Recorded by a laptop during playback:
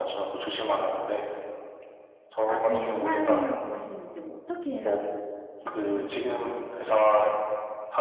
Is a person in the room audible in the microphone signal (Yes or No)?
Yes